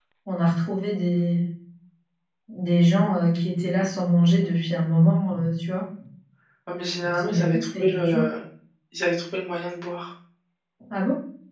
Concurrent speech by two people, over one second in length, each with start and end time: 7.0-8.2

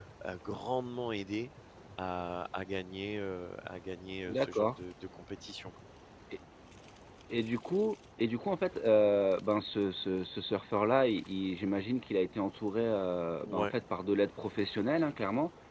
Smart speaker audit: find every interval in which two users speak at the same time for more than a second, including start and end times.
none

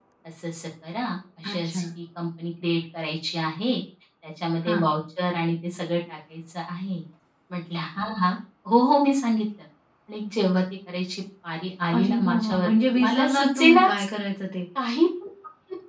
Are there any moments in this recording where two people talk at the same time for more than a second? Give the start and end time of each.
12.0-13.9

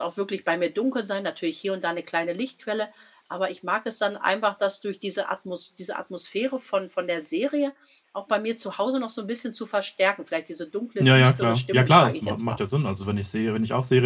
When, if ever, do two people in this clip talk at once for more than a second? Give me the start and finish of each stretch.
11.0-12.6

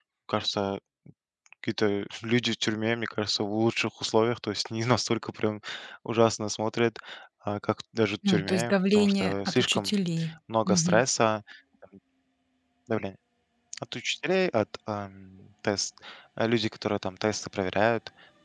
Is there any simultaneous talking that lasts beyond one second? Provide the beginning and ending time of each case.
8.3-9.9

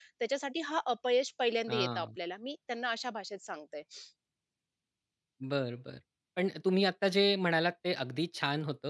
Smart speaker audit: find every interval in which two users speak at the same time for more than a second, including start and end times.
none

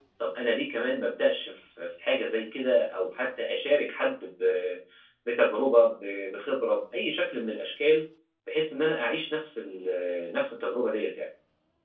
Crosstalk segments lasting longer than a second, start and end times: none

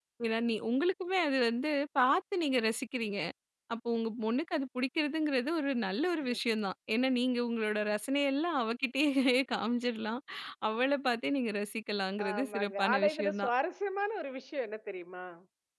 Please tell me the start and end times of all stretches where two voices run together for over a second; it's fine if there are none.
12.2-13.5

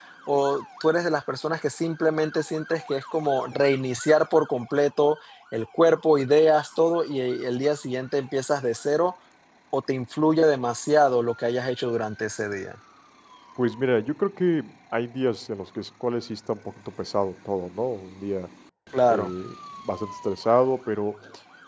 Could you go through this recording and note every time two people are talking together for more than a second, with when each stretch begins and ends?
none

